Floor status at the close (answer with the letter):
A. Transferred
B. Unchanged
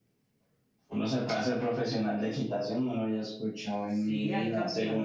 A